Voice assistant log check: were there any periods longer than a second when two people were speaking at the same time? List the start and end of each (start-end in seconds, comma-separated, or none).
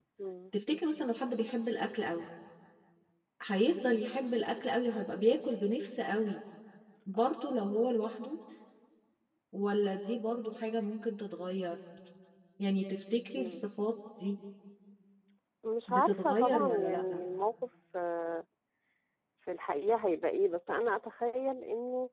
15.9-17.2